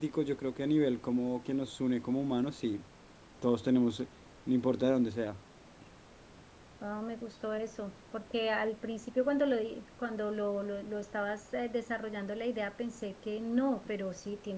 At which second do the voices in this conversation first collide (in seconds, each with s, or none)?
none